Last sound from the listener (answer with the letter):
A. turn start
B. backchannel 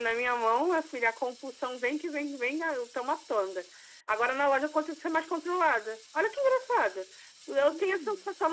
B